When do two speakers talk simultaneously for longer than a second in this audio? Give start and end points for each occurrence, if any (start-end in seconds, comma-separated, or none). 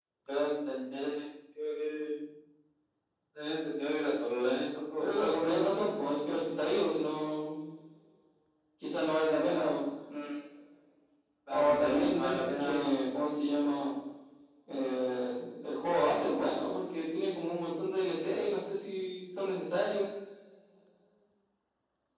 11.5-12.9